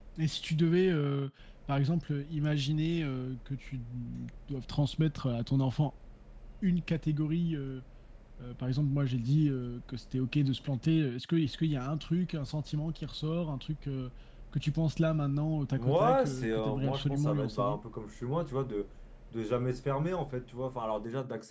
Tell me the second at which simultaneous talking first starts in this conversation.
15.8 s

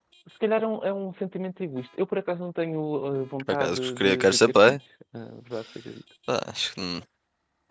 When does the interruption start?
3.5 s

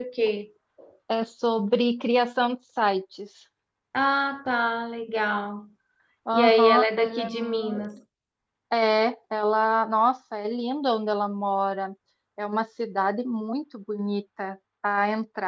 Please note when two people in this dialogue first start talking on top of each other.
6.3 s

